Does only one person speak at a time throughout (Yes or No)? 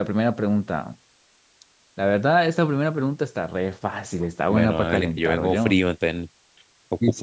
No